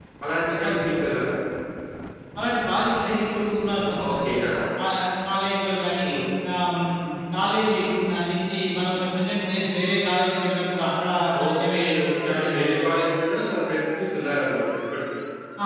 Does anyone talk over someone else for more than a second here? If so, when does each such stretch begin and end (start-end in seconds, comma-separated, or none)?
11.4-12.7